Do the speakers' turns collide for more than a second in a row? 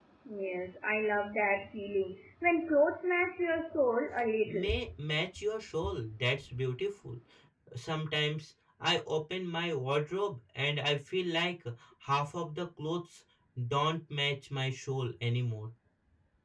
No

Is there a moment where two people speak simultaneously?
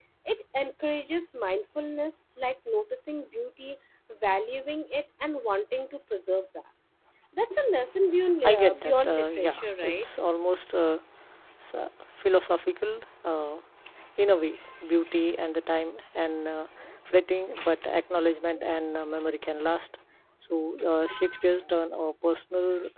Yes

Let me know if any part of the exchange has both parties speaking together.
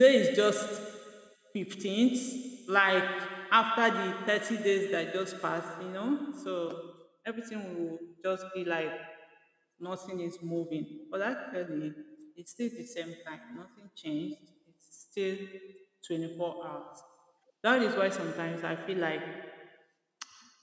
No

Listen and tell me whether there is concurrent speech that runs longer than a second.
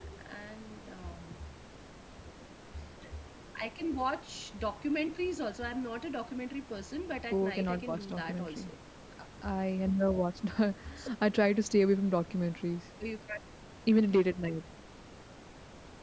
Yes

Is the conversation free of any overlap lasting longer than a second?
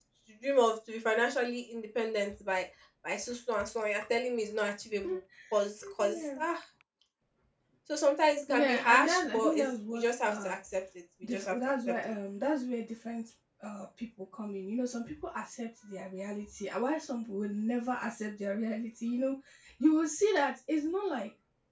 No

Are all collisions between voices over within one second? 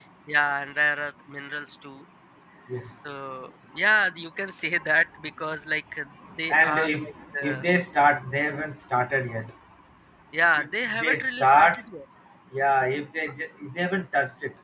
No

